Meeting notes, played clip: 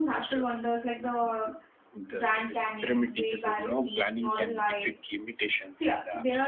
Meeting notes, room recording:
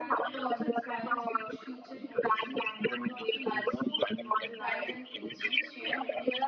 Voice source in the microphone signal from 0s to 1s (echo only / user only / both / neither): both